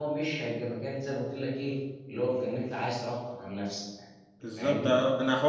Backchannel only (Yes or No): No